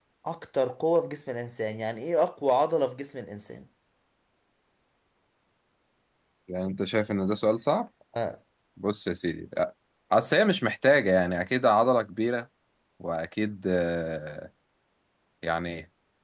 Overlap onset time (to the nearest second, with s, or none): none